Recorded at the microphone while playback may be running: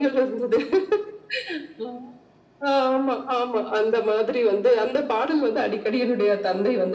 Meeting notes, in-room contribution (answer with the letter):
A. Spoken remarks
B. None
B